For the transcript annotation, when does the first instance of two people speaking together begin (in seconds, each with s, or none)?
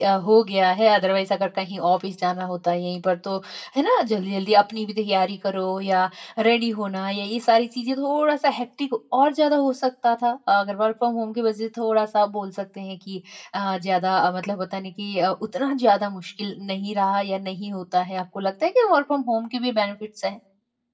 none